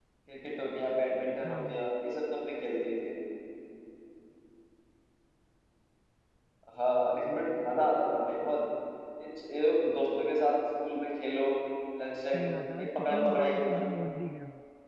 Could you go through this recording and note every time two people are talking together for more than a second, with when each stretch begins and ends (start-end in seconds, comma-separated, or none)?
12.3-13.8